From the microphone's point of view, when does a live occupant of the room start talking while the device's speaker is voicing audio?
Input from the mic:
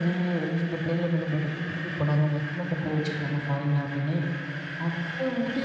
none

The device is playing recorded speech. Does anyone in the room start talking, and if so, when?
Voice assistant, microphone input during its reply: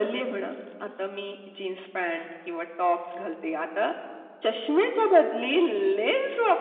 none

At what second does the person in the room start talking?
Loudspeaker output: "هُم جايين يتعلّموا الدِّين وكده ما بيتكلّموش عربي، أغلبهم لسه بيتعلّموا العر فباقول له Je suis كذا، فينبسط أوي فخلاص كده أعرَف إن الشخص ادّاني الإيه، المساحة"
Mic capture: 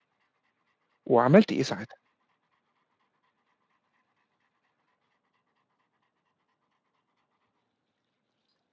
1.1 s

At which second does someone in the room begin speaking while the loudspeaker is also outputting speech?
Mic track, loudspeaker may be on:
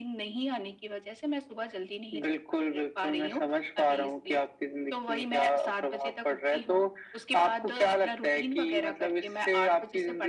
none

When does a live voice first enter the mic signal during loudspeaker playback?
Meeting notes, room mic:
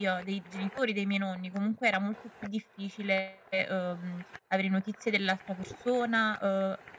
none

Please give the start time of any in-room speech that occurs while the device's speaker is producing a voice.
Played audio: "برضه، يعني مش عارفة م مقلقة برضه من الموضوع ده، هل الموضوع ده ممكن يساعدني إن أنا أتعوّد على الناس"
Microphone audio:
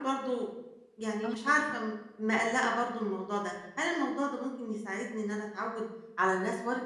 1.2 s

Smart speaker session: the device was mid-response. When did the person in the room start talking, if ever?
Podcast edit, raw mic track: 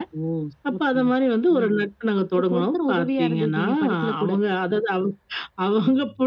none

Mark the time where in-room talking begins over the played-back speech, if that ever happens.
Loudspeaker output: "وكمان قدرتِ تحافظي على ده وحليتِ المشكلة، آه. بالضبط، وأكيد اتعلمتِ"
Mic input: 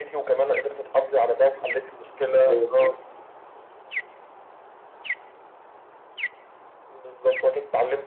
2.4 s

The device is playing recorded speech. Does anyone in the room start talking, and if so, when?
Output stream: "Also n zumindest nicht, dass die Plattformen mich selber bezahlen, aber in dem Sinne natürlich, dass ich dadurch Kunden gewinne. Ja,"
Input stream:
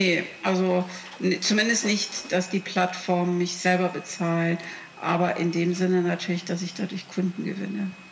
none

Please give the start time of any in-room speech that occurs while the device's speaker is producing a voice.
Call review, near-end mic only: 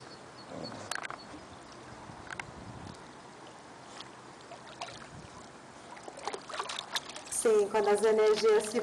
7.3 s

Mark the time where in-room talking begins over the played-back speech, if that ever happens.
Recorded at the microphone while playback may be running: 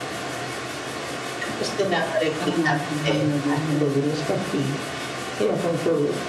2.4 s

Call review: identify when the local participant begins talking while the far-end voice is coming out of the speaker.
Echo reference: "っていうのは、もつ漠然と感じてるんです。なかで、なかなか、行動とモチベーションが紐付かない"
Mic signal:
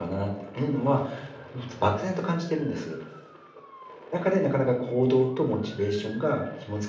none

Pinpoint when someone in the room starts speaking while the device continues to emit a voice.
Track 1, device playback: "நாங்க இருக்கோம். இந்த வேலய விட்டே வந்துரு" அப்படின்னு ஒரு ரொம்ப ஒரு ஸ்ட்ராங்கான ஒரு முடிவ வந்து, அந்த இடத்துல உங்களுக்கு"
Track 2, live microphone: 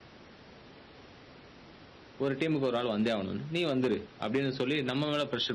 2.2 s

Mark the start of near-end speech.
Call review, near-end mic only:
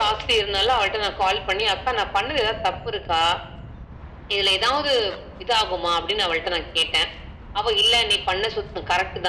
none

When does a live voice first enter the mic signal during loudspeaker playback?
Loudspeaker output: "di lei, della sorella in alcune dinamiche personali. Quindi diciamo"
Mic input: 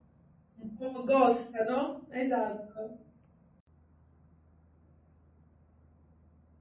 0.6 s

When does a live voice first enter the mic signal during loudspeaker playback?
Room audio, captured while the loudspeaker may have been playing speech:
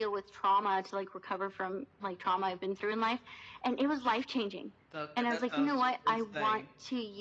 4.9 s

